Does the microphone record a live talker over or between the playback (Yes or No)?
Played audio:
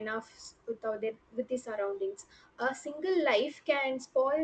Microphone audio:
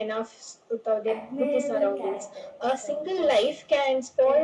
Yes